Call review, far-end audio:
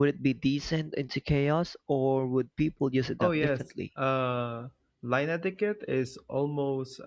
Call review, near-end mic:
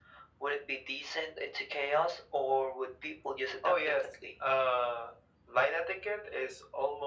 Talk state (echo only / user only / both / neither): echo only